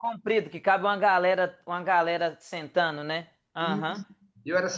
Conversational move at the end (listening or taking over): taking over